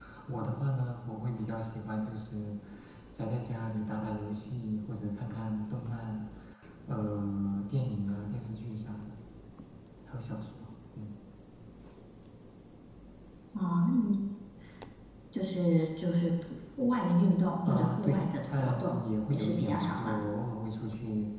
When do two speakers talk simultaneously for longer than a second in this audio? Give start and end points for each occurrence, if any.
17.6-20.2

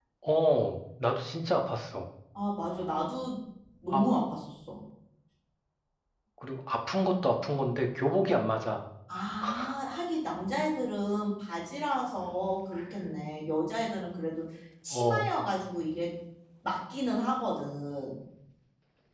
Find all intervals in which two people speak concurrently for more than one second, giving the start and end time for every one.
none

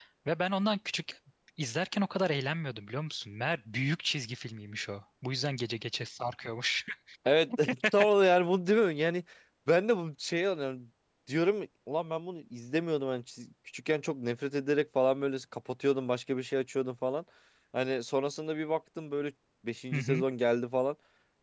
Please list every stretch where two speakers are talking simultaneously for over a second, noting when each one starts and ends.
none

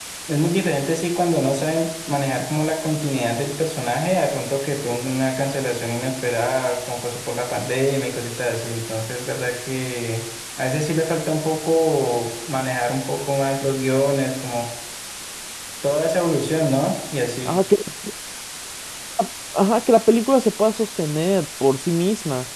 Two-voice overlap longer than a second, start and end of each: none

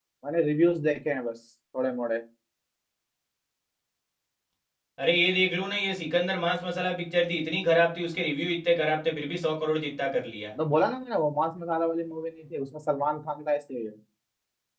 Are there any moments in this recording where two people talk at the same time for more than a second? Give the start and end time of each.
none

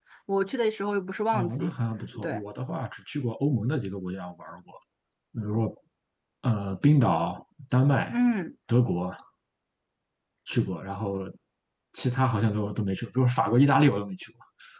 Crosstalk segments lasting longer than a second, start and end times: none

